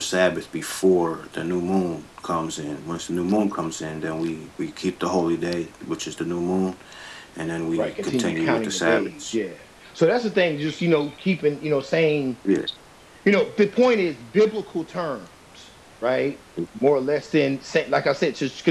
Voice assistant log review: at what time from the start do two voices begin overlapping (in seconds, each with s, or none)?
7.8 s